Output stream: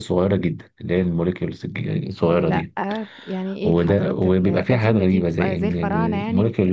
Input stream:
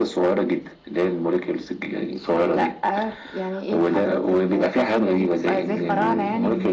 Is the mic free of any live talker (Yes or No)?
No